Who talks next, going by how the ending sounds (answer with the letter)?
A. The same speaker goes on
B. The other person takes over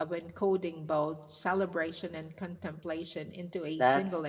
B